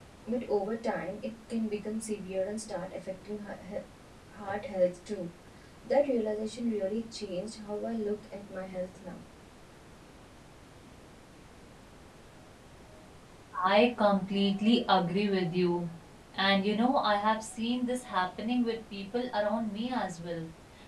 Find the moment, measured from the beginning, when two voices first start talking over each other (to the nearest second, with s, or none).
none